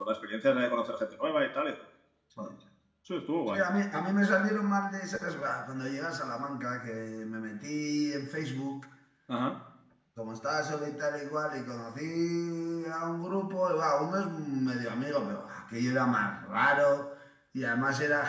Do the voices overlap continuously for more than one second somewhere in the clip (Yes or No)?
No